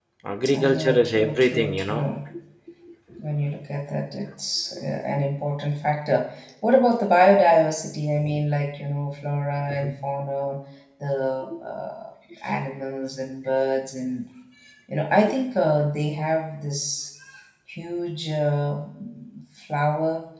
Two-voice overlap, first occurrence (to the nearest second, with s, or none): 1 s